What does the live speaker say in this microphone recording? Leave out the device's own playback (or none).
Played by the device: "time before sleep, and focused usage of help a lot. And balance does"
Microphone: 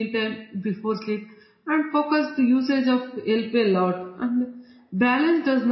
none